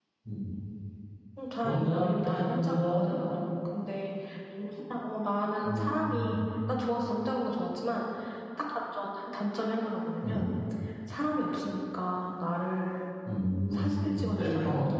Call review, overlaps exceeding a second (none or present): present